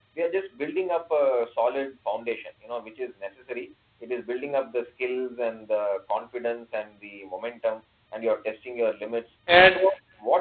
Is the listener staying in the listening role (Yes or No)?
Yes